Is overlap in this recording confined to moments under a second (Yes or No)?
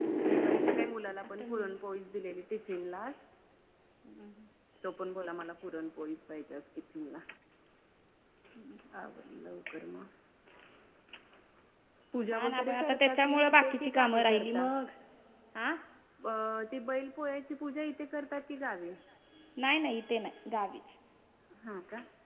No